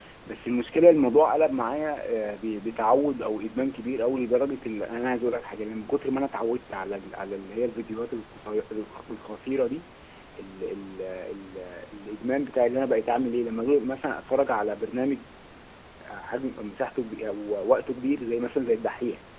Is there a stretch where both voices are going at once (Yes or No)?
No